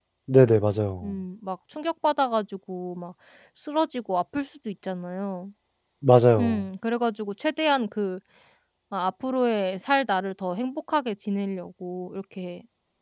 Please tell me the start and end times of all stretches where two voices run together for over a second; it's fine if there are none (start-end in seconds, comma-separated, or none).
none